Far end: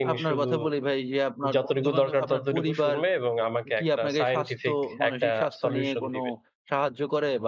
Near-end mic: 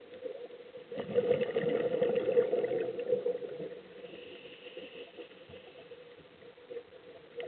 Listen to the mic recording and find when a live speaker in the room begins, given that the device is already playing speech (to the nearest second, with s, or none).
none